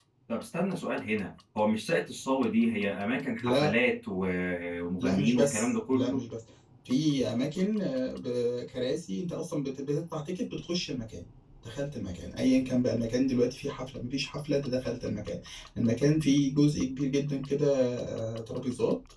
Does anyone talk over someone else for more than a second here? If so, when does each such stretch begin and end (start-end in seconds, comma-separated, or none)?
5.0-6.2